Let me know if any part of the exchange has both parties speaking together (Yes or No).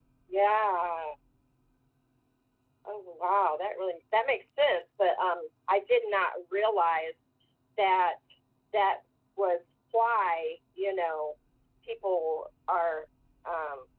No